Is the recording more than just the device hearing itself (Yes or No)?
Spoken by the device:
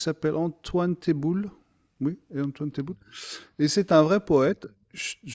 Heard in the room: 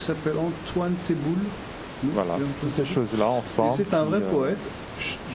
Yes